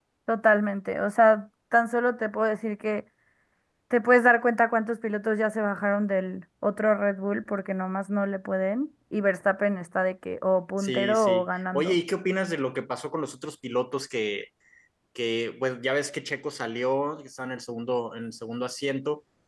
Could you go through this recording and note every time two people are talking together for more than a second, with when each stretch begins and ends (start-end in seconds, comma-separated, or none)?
10.8-12.0